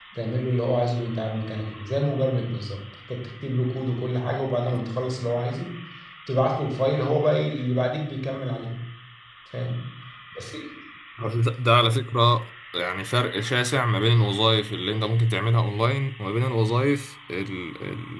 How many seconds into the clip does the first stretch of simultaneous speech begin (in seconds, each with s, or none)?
none